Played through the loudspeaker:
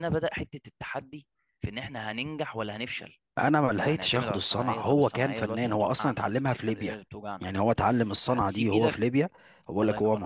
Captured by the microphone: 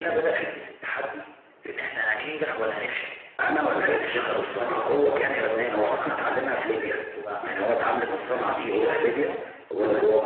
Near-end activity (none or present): none